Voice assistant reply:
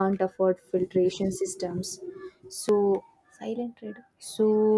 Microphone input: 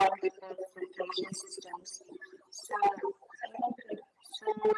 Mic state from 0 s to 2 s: echo only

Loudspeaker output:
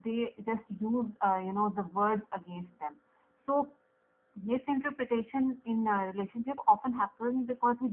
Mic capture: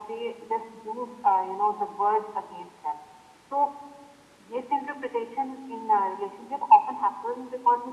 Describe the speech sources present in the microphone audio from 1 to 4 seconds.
echo only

